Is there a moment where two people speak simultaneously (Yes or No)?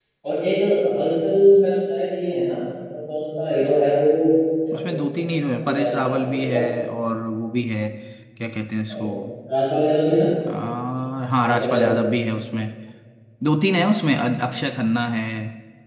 Yes